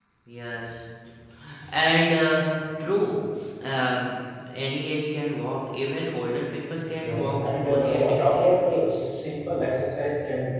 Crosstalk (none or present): present